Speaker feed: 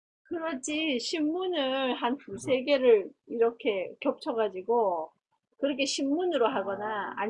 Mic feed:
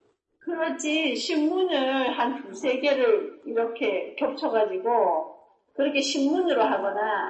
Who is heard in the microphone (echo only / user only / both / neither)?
echo only